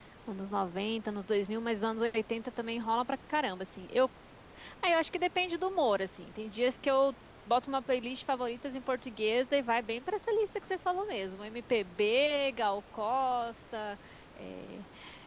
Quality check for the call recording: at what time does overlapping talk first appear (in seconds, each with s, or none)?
none